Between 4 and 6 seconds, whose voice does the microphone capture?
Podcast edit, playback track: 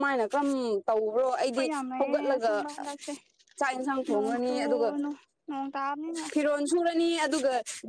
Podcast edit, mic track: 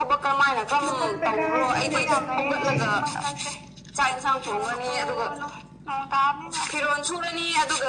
echo only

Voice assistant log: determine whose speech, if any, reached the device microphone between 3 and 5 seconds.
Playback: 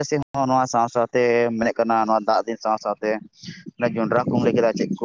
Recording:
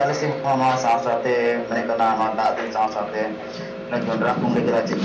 echo only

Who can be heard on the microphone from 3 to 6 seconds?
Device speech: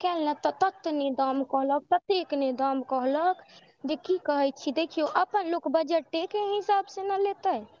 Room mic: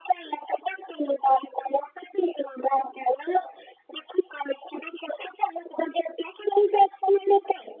echo only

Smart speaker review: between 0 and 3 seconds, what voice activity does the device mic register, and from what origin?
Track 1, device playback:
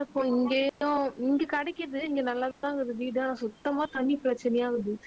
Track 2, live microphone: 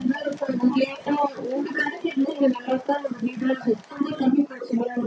echo only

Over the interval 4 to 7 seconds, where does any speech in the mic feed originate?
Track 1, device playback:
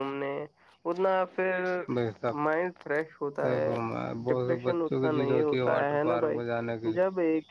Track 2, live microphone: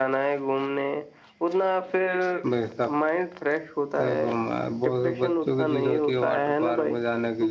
echo only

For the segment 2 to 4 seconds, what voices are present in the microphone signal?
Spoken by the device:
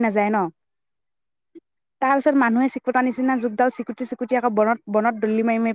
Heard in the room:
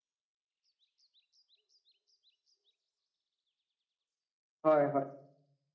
neither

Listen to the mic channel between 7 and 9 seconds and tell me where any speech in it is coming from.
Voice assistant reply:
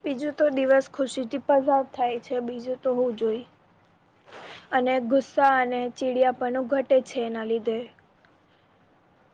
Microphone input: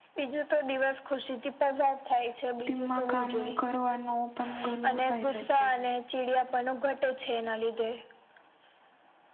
echo only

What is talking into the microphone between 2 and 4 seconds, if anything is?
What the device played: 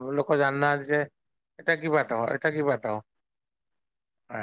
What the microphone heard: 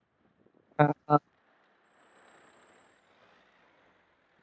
neither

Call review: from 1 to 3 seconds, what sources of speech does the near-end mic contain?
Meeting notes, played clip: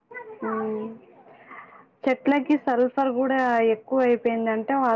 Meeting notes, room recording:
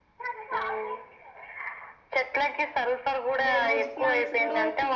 echo only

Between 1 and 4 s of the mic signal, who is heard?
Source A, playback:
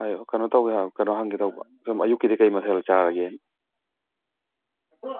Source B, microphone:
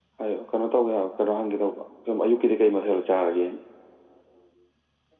echo only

